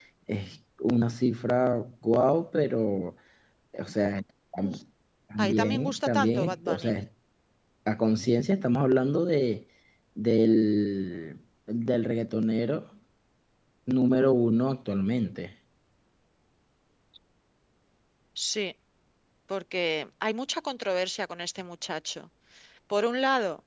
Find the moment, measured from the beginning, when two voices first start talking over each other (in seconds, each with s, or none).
5.4 s